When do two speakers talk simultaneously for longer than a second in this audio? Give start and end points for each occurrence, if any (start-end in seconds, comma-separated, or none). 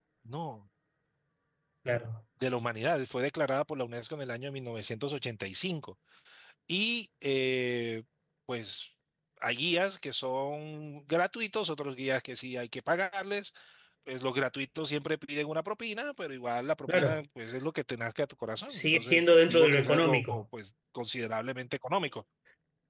18.7-20.4